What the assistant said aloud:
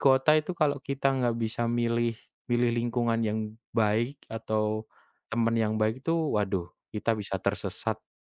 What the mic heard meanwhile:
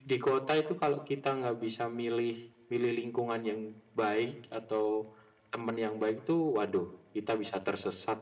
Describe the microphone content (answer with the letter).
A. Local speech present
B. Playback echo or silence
B